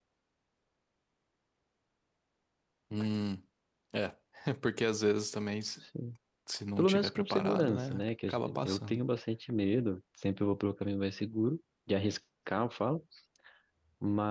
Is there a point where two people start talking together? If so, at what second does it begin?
6.8 s

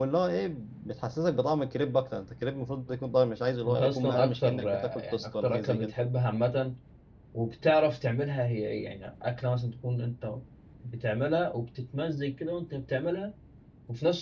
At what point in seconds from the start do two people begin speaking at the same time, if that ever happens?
3.6 s

